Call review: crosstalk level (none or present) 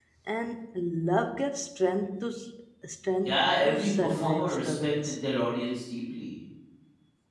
present